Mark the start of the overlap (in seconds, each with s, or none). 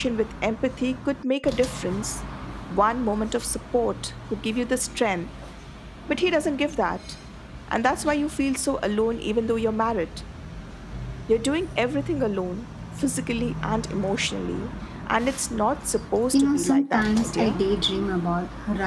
16.3 s